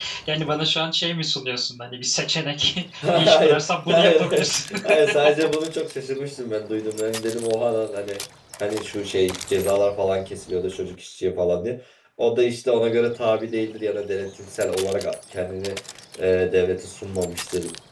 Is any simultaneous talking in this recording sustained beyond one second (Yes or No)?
Yes